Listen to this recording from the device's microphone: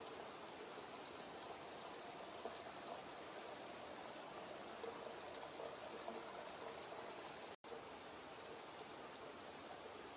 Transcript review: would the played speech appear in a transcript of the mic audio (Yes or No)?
No